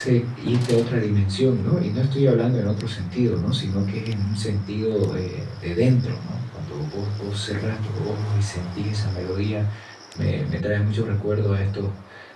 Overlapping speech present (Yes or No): No